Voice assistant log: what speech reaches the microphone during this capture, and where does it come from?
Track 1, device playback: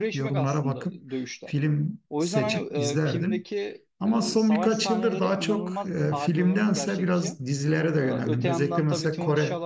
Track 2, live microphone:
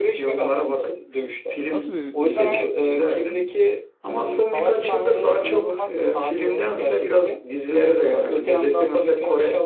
both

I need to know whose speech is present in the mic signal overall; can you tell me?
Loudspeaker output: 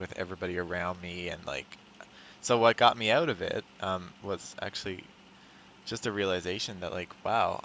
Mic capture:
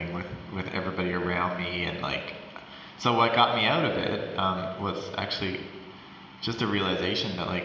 echo only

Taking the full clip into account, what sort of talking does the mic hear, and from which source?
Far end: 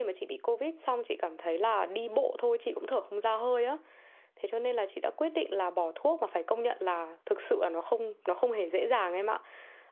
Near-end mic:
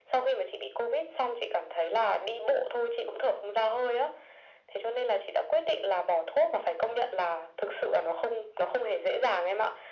echo only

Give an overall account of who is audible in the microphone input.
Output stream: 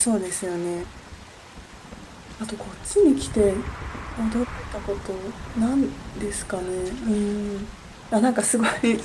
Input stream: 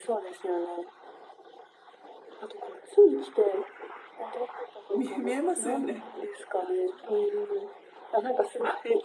both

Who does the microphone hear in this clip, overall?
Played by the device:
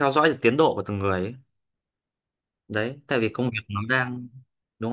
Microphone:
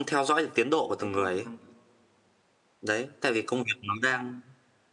both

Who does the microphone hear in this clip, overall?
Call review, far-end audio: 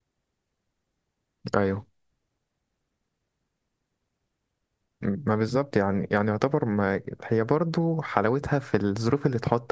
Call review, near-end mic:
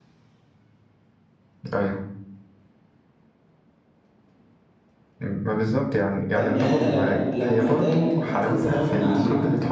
both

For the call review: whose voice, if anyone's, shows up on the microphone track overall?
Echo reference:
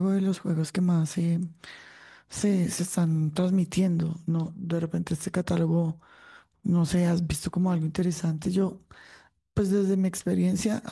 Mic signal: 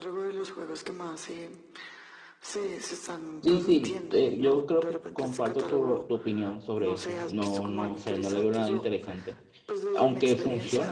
both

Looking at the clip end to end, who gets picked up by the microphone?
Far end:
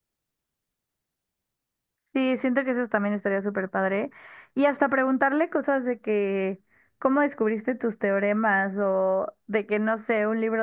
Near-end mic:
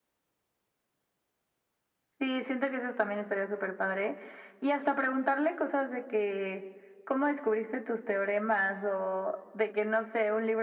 echo only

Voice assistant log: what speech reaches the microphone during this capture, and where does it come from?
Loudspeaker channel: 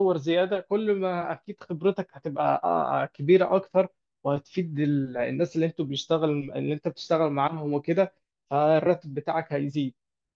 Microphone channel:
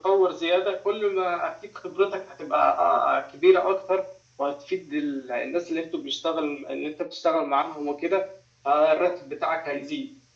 echo only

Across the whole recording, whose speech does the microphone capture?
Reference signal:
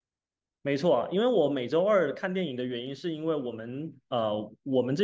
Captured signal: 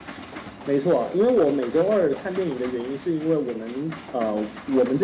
echo only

